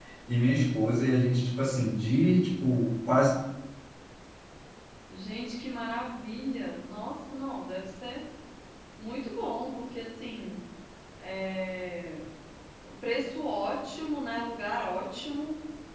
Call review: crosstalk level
none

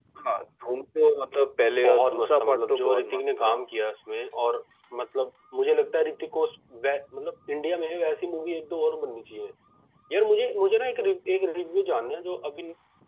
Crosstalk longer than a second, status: present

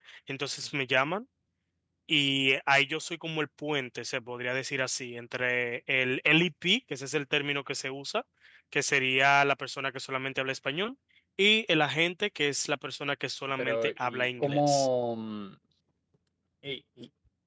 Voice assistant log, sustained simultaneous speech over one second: present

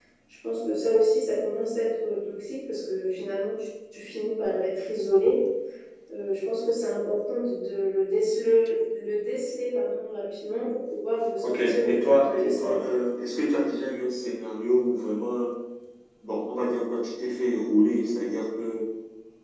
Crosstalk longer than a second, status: present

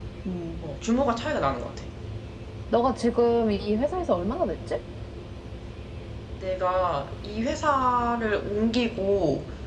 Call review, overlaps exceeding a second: none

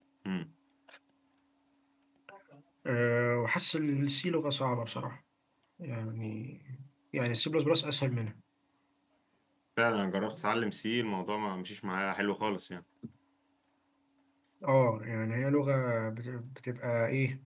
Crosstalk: none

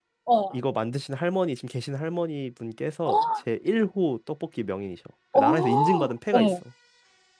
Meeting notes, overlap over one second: present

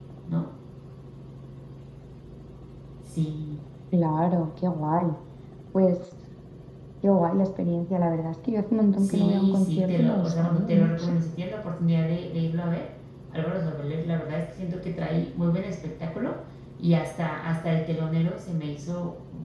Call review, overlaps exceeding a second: present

